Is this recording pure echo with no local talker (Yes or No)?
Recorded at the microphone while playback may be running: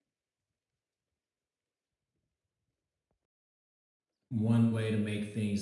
No